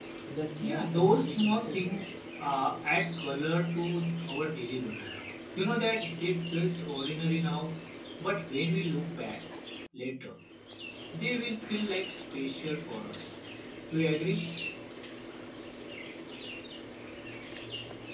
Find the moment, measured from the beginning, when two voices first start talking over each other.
0.6 s

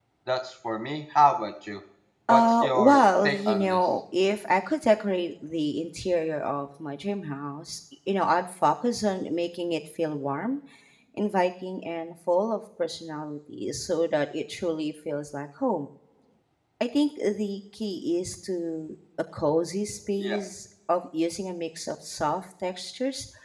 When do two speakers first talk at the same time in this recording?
2.3 s

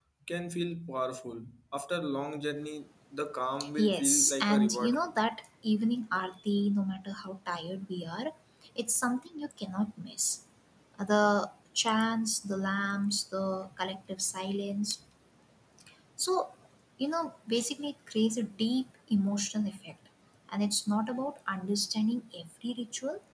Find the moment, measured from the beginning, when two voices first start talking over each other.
3.8 s

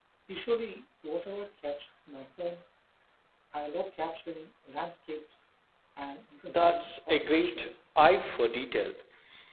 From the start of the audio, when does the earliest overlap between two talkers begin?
6.5 s

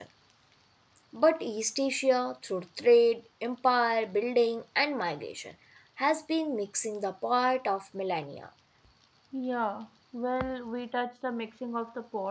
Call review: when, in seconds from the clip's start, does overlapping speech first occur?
none

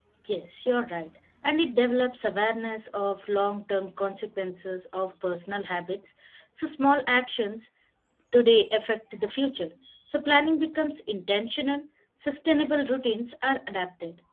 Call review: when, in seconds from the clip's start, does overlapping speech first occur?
none

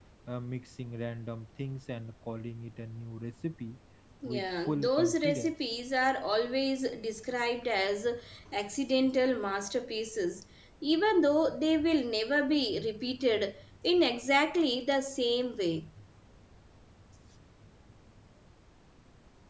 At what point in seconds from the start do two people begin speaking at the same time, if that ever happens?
4.2 s

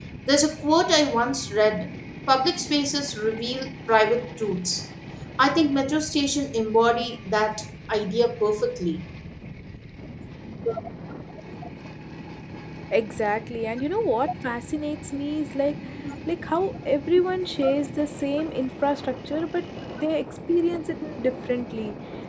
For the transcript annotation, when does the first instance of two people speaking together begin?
none

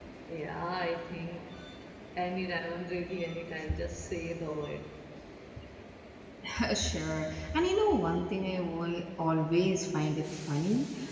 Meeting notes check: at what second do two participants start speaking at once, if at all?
none

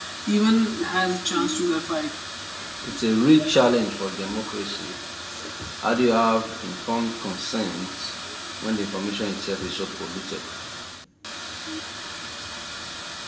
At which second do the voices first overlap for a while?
none

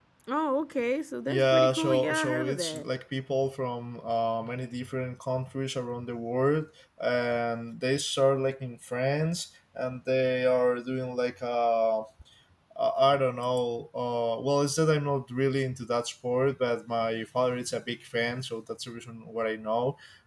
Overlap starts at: 1.3 s

